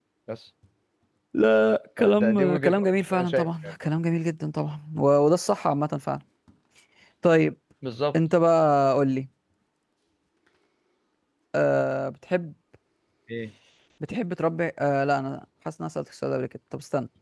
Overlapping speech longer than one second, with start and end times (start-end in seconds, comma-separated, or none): 2.0-3.7